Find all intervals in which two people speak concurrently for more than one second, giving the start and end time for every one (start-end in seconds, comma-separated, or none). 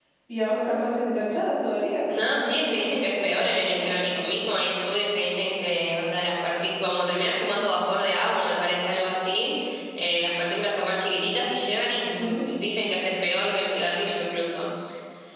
2.1-3.9